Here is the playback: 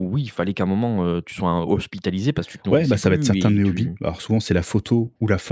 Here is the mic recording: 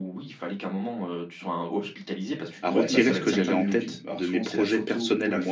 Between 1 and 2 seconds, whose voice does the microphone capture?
echo only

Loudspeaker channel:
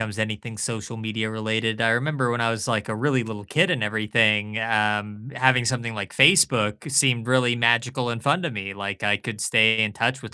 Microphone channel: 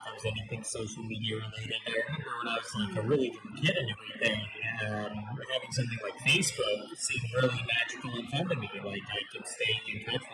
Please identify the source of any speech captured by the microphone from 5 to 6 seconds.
echo only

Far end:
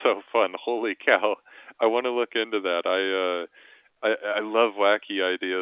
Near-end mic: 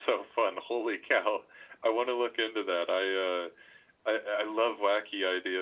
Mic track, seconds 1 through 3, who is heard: echo only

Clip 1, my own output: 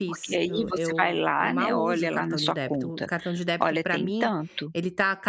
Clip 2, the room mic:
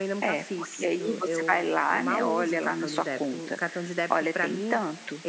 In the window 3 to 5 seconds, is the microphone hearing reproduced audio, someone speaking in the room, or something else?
echo only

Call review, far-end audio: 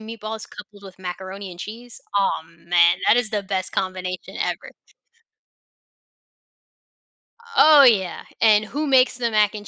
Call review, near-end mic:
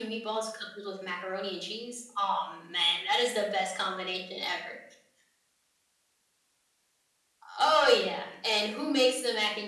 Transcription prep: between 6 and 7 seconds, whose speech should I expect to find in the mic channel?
neither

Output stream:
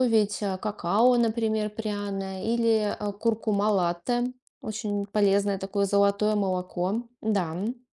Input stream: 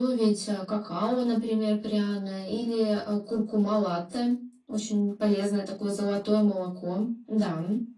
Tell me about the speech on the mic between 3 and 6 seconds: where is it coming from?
echo only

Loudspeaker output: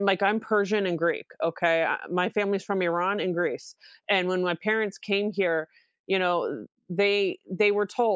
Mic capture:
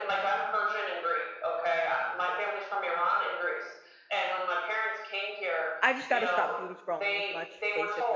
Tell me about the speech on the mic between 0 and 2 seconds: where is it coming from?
echo only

